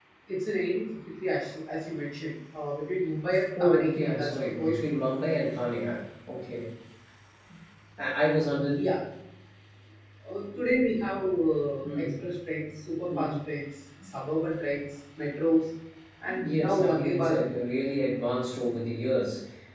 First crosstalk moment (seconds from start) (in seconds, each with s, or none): 3.6 s